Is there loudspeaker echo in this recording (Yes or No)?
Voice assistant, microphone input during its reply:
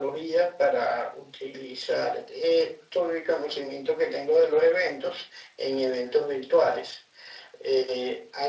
Yes